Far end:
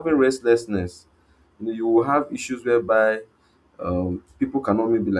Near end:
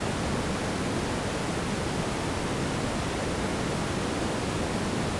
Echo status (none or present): none